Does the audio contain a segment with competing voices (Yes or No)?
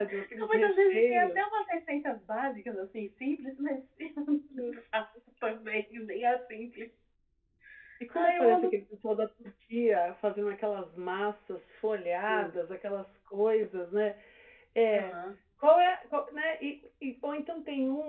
Yes